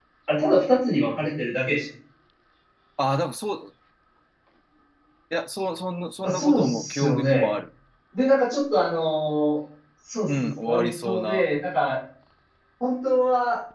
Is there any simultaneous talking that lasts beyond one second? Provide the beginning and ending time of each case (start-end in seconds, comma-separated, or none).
6.2-7.5, 10.3-11.5